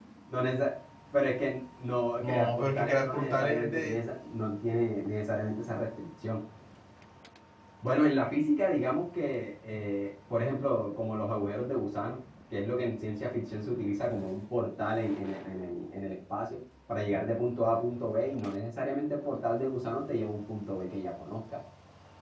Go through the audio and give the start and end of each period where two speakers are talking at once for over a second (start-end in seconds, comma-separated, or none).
2.2-4.0